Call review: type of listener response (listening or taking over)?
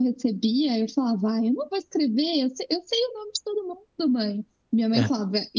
listening